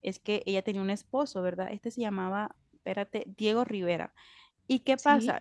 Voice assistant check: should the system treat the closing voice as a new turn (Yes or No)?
No